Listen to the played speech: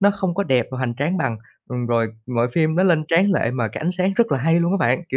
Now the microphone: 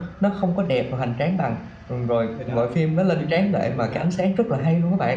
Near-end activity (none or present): present